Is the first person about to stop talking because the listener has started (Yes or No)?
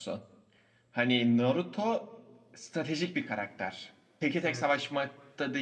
No